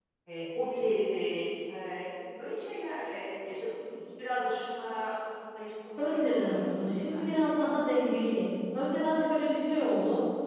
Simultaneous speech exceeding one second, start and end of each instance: 6.0-8.0

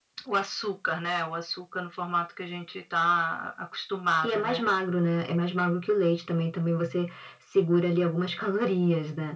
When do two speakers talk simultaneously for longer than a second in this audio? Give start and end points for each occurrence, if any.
none

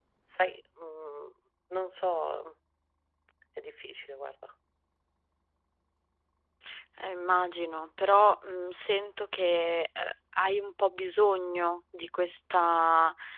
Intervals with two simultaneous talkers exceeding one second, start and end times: none

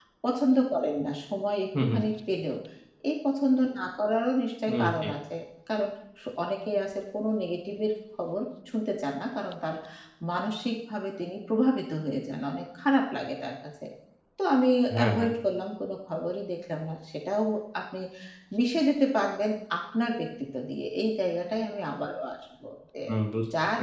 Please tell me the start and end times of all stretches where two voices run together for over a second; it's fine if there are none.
none

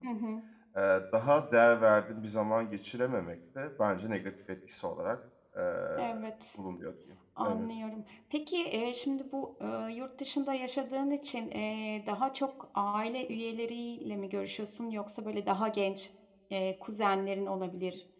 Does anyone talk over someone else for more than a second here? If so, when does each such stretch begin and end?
none

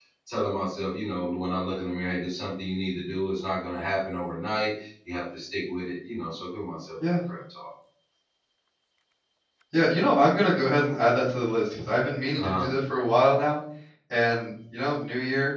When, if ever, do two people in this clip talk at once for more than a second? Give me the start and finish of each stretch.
none

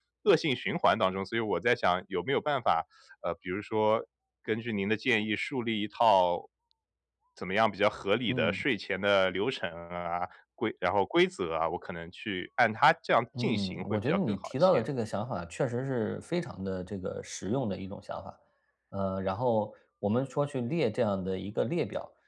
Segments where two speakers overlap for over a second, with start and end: 13.4-14.8

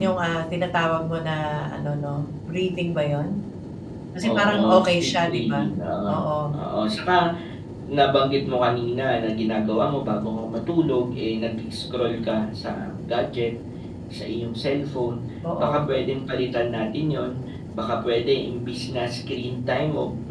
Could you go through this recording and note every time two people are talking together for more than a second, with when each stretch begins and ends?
4.2-5.7

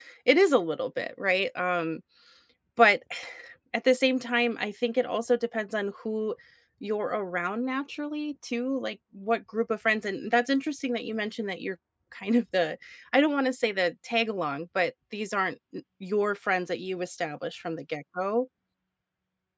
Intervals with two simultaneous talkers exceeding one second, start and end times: none

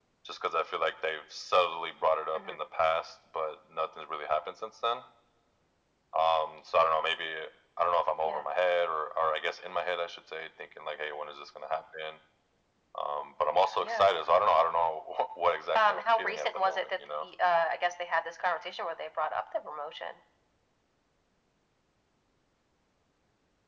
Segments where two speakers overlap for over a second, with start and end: 15.8-17.3

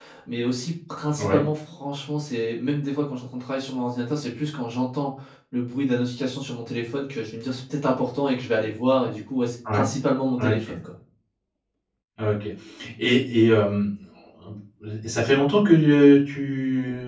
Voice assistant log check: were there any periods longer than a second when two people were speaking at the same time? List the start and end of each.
none

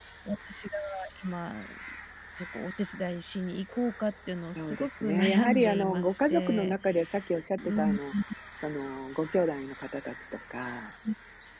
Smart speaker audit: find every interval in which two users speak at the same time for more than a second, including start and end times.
4.6-6.8

